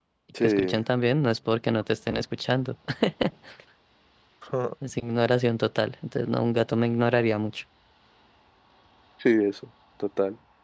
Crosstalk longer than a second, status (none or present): none